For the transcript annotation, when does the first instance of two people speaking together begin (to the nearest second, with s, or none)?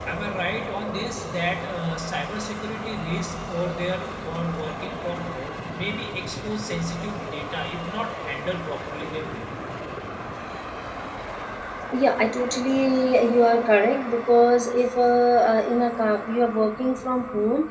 none